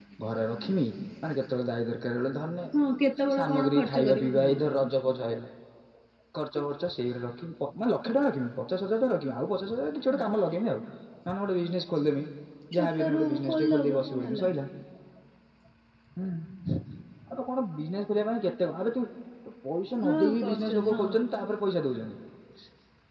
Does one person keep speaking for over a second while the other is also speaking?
Yes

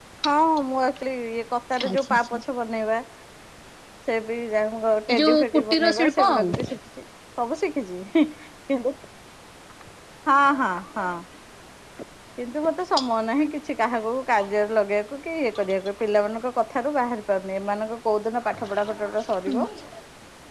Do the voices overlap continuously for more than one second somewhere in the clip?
Yes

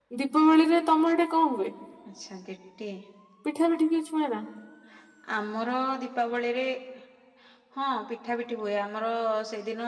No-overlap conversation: Yes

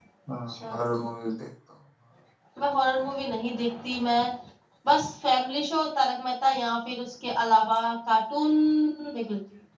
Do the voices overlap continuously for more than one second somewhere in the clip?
No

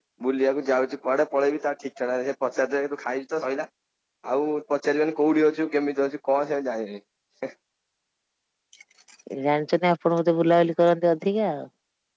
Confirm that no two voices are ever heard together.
Yes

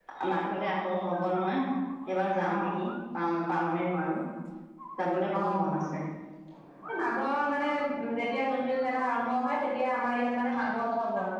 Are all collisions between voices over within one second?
Yes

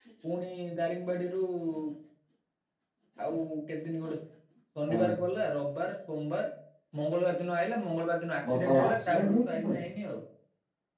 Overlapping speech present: Yes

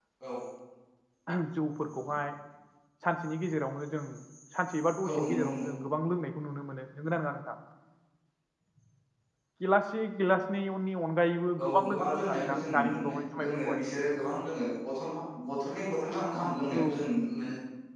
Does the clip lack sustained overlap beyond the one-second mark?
No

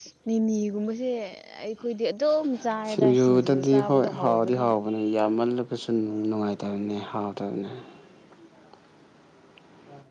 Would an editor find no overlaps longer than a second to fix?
No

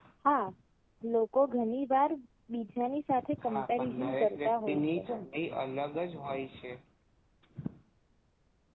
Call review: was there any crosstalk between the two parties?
Yes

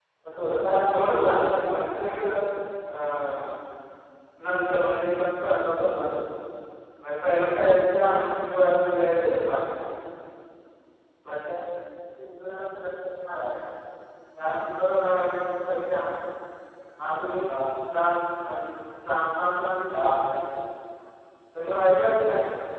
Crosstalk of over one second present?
Yes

